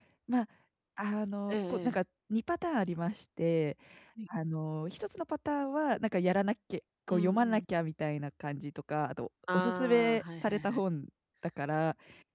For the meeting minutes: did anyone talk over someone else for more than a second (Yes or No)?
Yes